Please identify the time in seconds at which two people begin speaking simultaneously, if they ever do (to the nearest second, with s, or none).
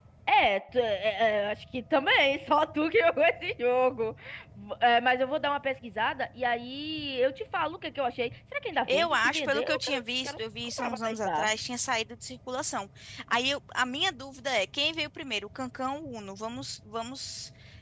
9 s